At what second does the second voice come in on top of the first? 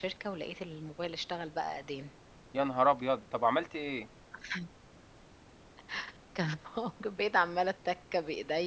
none

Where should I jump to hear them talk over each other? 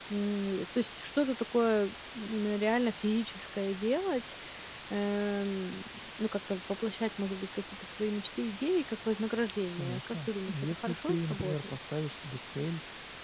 9.7 s

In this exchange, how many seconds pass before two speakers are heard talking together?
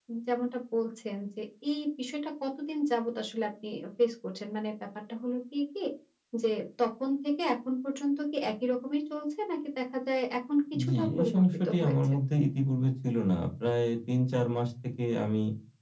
10.7 s

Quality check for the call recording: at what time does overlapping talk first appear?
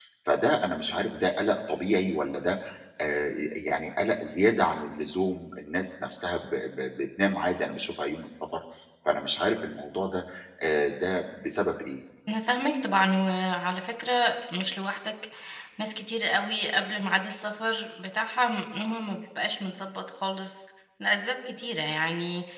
none

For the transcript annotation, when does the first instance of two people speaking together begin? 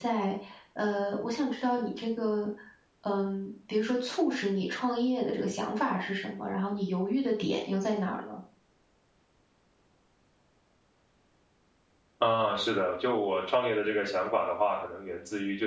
none

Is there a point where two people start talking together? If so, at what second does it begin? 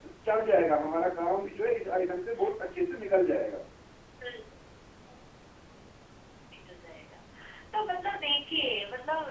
none

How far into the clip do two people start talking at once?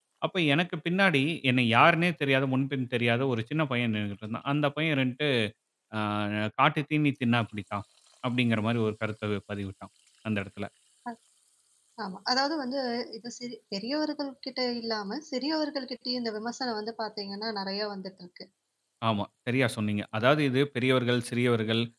none

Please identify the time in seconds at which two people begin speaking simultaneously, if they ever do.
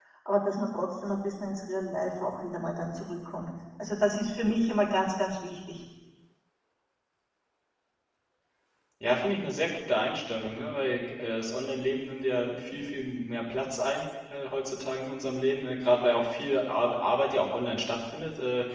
none

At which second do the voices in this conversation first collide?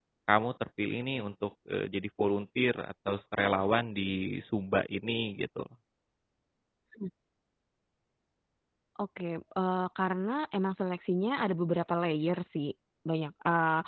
none

